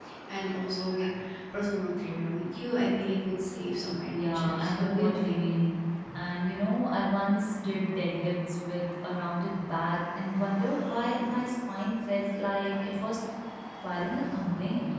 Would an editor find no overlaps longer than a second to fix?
No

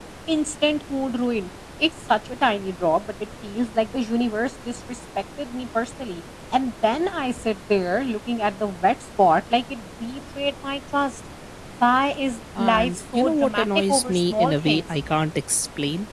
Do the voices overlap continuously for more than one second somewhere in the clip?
Yes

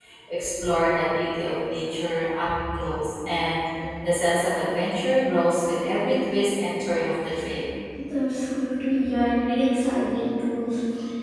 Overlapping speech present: No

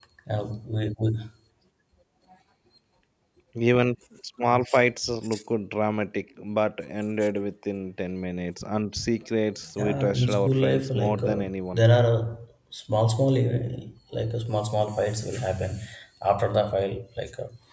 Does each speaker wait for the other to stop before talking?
No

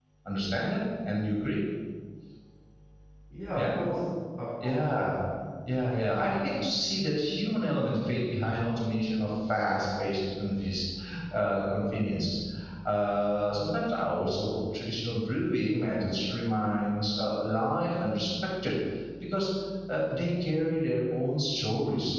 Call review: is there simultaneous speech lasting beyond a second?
No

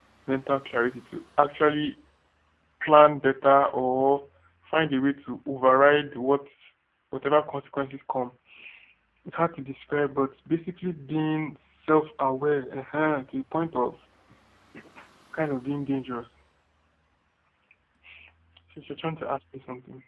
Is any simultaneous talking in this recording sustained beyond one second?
No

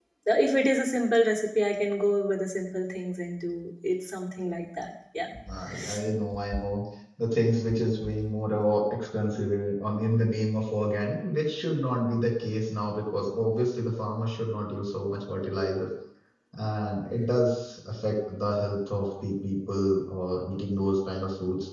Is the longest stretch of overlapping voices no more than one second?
Yes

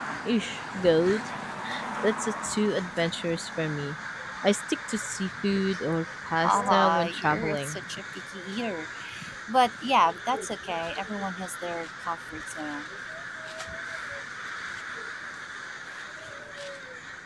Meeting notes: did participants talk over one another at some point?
Yes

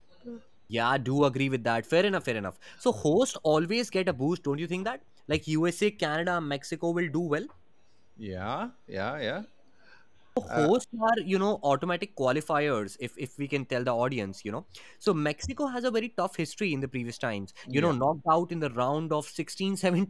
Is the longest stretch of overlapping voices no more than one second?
Yes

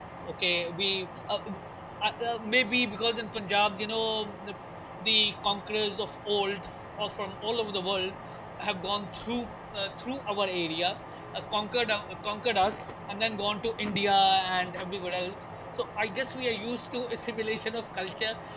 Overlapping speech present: No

